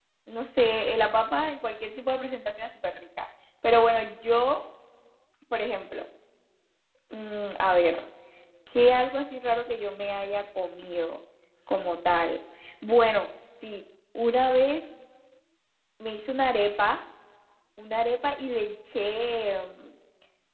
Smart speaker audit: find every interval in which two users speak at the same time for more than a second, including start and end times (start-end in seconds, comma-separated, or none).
none